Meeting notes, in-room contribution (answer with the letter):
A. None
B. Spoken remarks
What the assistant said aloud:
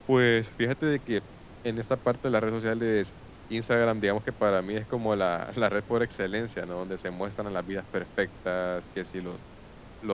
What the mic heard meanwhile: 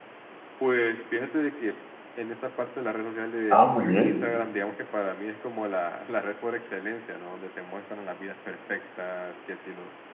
B